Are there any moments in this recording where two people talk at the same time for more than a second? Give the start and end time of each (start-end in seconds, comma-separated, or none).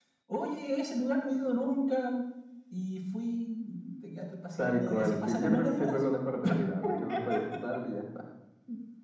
4.6-5.9